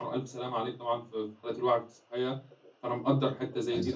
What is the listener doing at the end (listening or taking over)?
listening